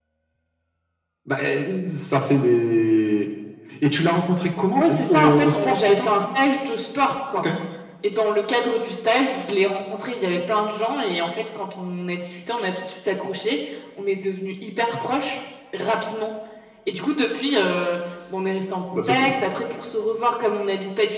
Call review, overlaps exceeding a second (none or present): present